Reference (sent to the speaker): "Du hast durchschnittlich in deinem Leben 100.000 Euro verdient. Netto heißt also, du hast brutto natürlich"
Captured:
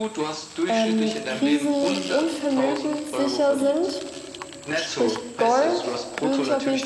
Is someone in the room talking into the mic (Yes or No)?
Yes